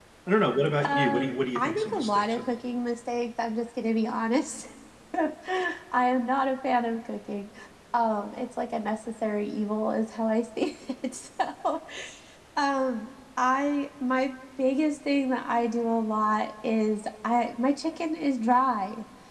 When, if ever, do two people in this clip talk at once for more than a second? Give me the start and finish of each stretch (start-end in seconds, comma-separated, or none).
0.8-2.5